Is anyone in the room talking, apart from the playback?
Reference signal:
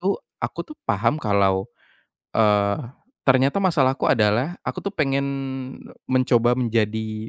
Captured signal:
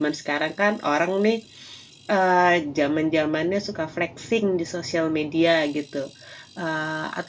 Yes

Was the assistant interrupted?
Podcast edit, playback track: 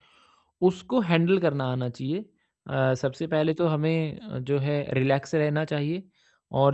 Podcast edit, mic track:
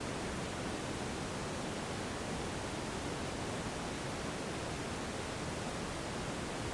No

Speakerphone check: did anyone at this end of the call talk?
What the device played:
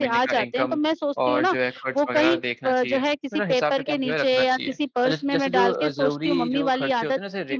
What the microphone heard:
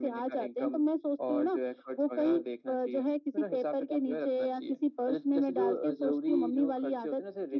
No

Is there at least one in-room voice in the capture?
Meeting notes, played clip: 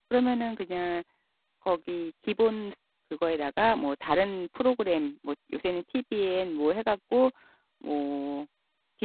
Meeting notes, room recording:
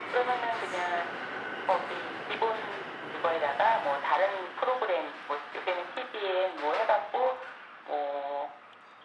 No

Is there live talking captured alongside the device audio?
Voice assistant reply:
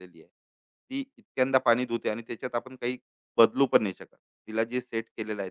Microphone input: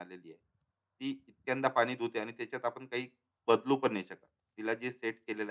No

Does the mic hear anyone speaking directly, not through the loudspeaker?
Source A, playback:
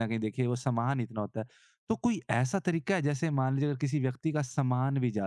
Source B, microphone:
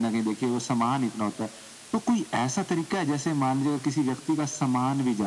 No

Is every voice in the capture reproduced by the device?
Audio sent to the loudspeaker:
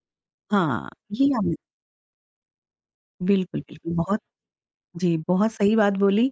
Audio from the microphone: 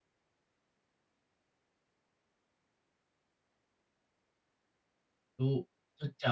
No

